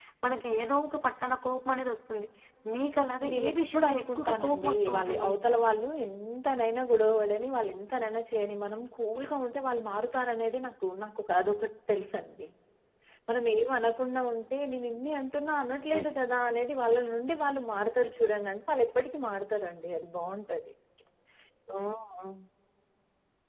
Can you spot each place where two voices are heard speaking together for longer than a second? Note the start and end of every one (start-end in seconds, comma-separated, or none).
3.3-5.3